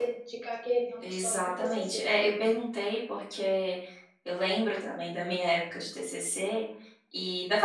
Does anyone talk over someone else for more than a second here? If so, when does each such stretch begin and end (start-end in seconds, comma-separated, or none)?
1.1-2.4